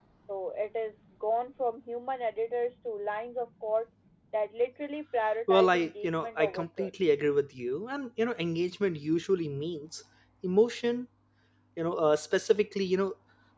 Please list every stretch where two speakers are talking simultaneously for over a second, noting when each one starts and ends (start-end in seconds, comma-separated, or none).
5.5-6.9